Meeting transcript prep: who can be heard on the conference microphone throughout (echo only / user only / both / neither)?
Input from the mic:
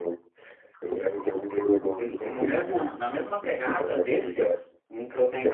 both